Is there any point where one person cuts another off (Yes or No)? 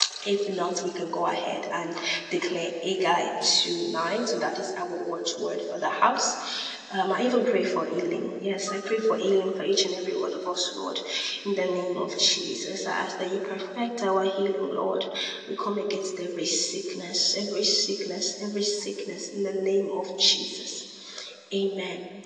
No